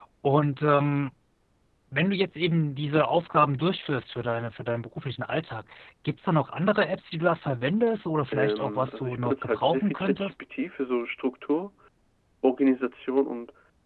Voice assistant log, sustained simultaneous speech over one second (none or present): present